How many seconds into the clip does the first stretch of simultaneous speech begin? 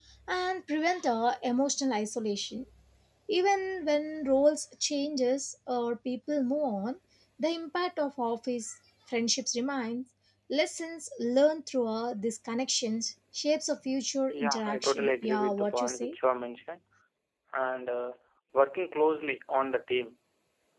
14.3 s

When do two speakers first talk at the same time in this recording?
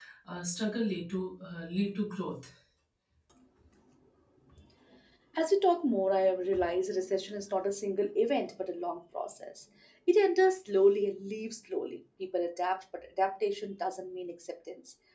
none

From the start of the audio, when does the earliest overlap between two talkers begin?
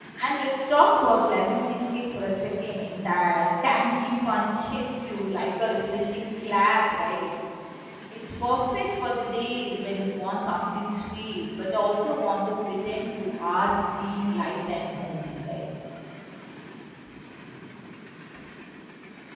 none

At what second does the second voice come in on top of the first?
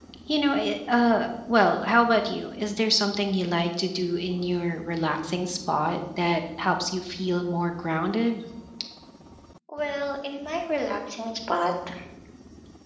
none

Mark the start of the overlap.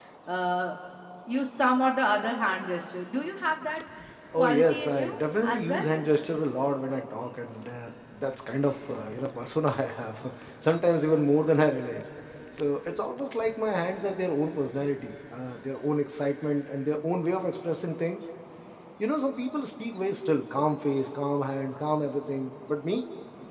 4.4 s

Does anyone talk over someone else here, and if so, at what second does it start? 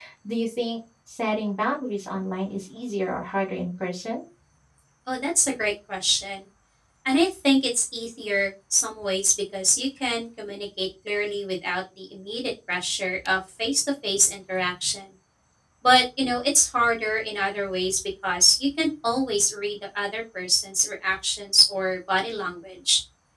none

